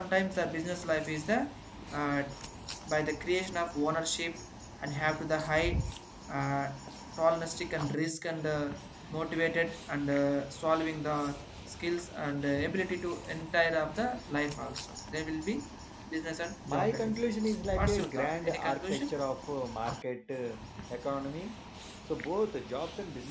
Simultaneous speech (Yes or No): Yes